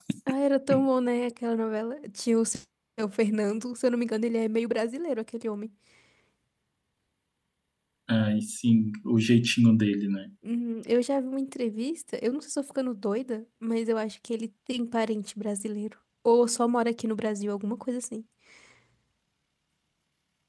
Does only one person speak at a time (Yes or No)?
Yes